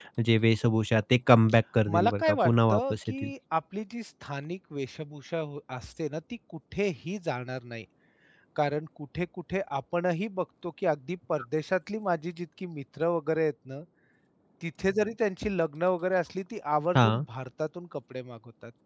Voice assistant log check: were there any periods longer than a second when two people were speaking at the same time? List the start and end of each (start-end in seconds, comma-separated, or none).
1.9-3.3